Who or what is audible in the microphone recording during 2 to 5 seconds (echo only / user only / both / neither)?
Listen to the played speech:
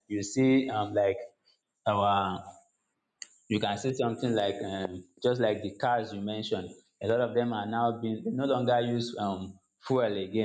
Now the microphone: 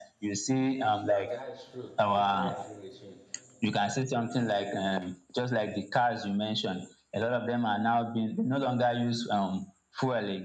both